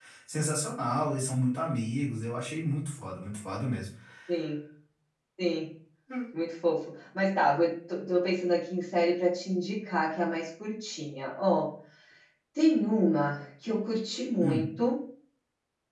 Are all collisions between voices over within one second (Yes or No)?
Yes